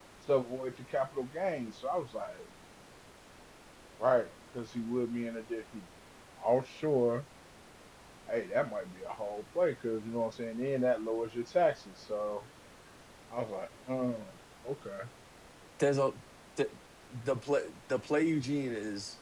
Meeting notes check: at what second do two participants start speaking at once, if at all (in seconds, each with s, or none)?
none